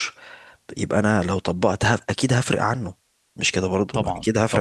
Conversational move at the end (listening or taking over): taking over